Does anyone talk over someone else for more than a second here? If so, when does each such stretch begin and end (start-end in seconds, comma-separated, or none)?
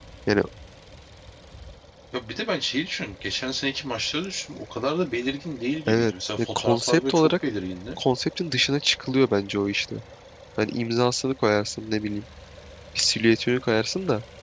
5.9-7.3